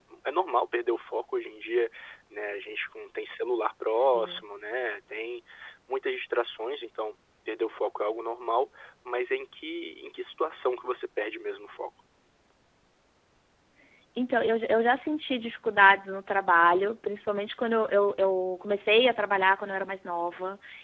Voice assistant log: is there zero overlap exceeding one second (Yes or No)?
Yes